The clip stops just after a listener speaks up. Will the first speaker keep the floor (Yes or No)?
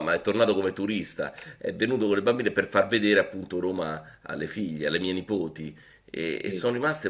Yes